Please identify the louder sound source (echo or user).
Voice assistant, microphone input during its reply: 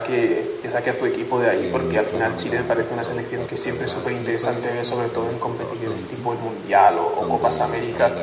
echo